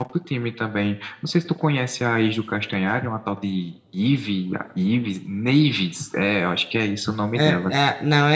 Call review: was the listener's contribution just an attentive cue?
No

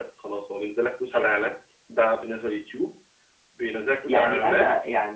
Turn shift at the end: Yes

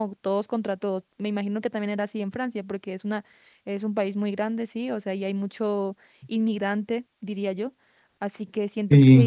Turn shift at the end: No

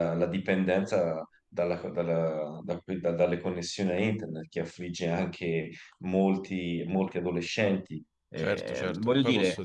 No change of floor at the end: No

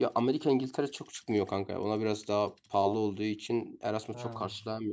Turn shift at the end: No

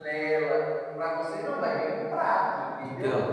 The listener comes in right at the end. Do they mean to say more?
No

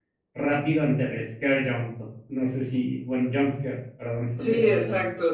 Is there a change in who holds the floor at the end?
Yes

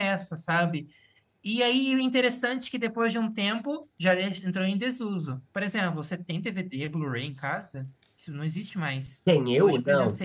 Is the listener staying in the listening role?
No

